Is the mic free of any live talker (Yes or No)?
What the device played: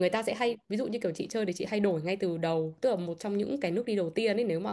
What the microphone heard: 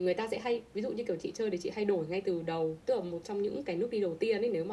Yes